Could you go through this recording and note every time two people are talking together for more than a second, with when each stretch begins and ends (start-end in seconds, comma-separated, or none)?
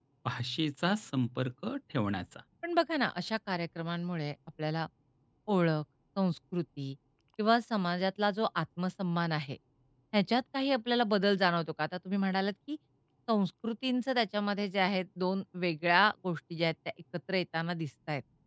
none